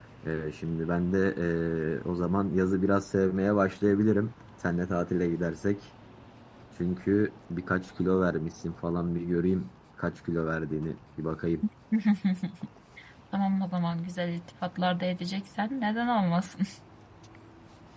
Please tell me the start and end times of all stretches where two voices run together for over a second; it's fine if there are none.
none

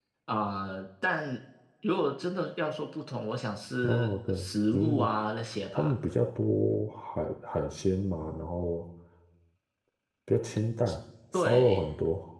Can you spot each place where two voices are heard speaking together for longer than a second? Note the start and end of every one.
3.8-5.1

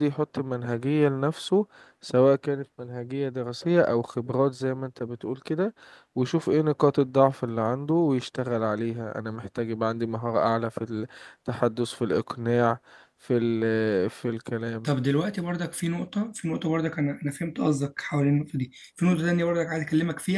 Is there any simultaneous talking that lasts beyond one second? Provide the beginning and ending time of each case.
none

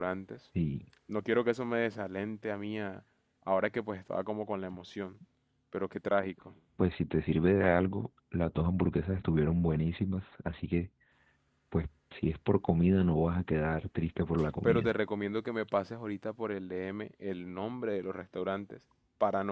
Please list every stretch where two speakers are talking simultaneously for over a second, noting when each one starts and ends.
none

